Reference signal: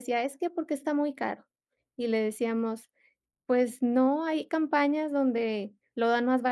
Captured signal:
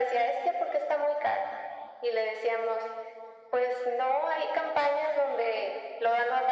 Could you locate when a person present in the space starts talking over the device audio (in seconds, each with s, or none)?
none